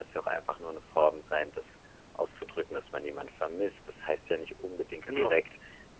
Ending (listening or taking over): listening